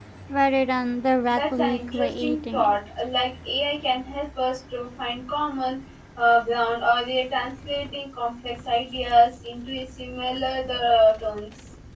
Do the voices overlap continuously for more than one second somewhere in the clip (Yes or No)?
Yes